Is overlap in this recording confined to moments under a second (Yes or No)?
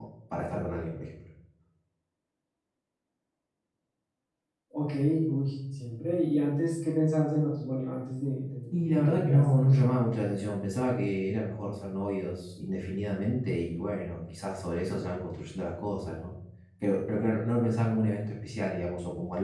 No